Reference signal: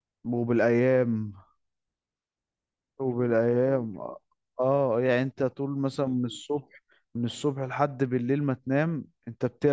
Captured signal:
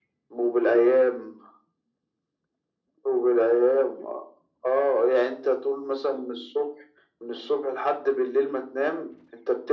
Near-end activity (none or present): none